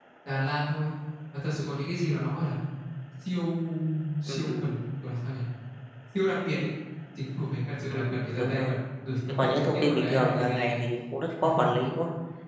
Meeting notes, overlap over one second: present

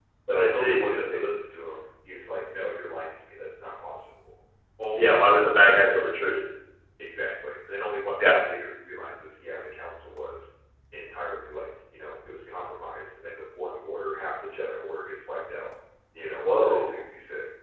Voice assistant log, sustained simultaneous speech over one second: present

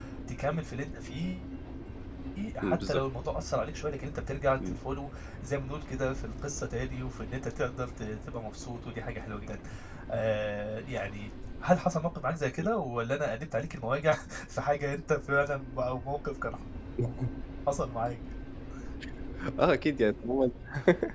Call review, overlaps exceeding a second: none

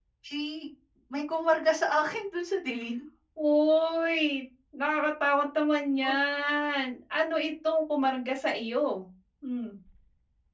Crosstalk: none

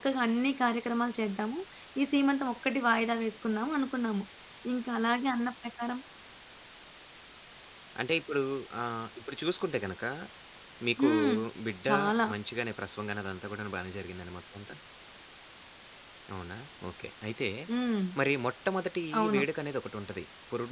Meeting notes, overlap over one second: none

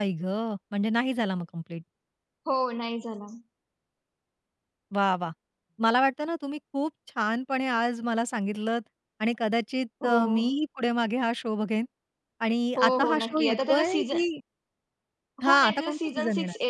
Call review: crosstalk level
present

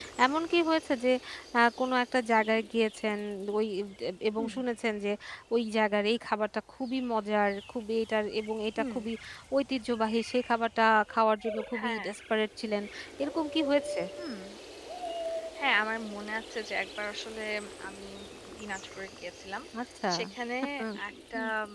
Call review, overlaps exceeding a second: none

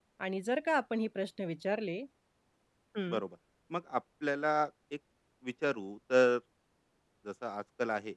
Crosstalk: none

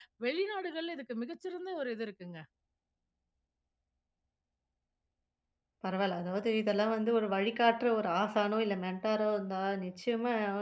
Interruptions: none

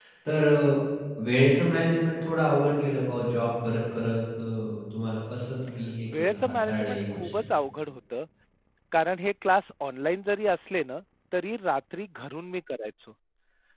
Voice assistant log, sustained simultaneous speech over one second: present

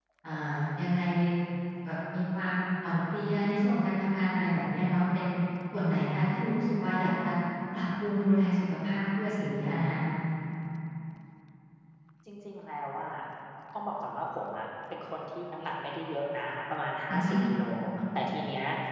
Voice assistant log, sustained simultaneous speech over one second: none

